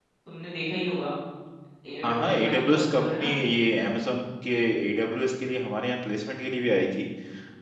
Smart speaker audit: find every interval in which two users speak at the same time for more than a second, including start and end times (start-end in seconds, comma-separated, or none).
2.0-3.4